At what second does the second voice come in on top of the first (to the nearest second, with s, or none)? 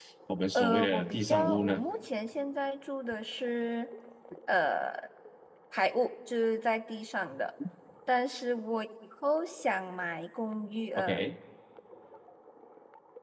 1 s